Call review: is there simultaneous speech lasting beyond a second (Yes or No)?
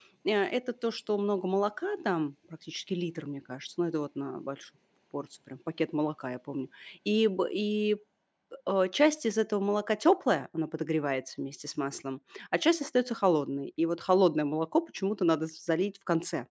No